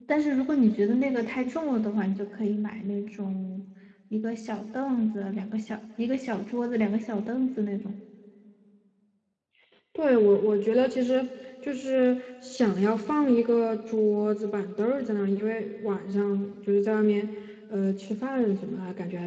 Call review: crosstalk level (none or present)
none